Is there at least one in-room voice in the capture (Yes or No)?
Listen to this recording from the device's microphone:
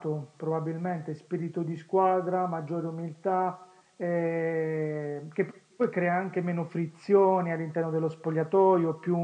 No